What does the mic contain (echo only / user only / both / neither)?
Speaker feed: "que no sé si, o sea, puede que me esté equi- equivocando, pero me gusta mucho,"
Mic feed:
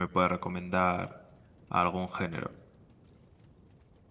user only